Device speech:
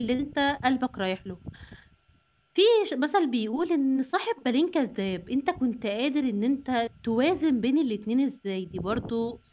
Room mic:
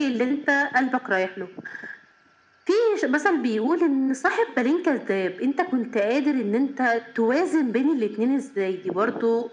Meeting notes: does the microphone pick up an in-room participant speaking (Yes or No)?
No